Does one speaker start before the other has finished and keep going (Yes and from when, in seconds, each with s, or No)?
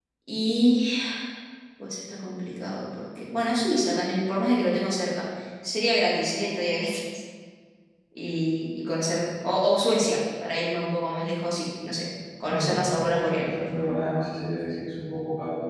Yes, from 12.4 s